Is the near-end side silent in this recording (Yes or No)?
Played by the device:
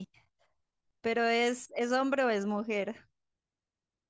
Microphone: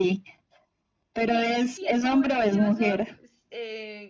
No